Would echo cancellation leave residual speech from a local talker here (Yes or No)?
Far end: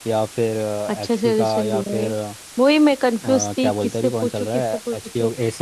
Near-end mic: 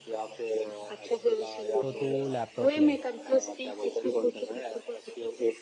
Yes